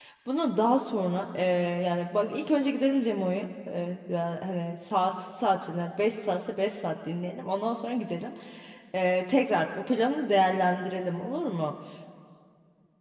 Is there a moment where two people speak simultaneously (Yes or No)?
No